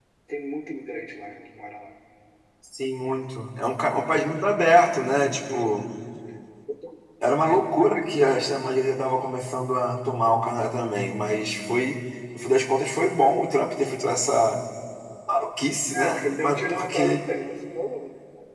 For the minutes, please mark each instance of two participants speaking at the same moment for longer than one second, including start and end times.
15.9-17.2

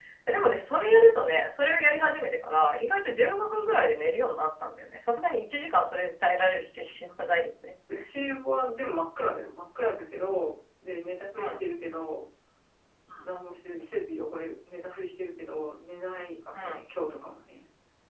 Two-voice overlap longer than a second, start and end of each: none

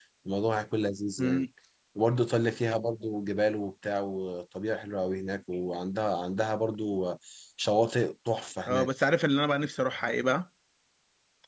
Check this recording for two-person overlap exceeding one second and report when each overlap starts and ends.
none

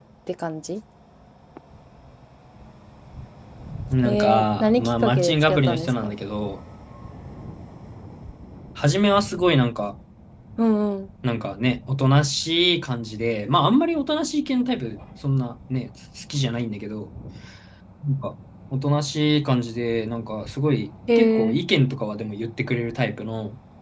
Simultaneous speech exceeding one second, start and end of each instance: 4.0-6.1

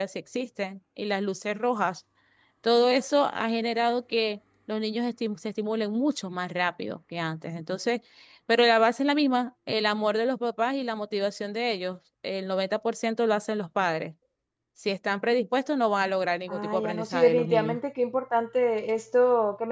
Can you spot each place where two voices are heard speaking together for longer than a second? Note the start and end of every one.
16.5-17.8

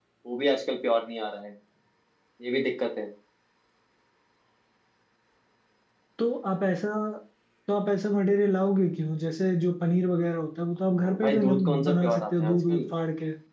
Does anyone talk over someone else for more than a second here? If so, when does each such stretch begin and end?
11.0-12.9

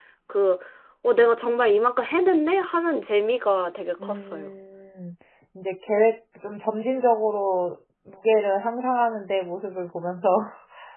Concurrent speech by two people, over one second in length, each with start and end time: none

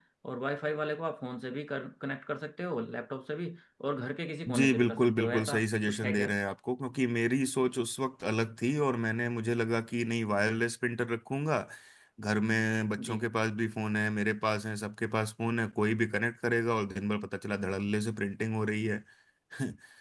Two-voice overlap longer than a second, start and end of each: 4.5-6.3

